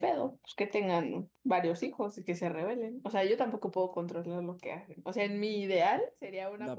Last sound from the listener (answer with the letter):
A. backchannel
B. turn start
B